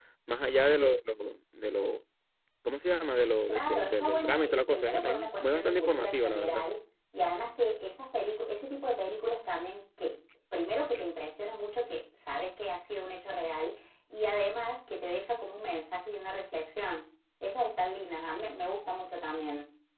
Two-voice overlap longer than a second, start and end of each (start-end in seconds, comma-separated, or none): 3.5-6.6